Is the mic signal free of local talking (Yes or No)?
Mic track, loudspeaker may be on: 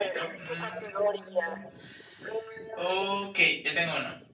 No